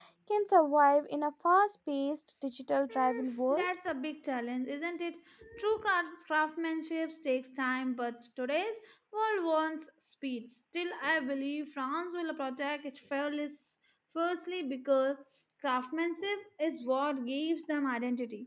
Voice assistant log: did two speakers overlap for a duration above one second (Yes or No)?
No